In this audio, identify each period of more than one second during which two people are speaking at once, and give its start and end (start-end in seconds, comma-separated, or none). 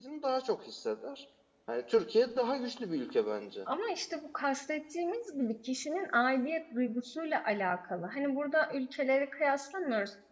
none